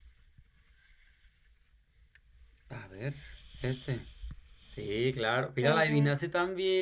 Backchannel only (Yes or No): Yes